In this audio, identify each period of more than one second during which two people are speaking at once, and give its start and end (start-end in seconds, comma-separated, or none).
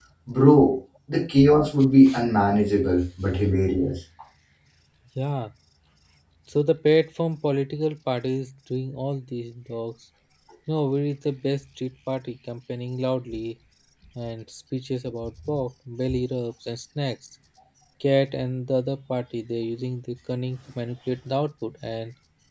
none